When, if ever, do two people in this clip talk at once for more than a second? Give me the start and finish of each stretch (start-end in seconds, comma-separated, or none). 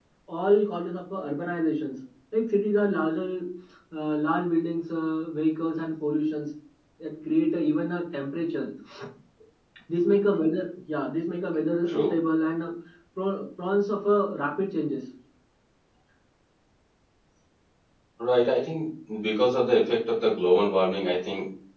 none